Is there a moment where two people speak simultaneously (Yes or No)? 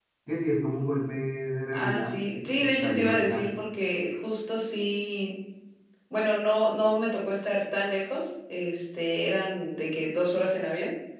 Yes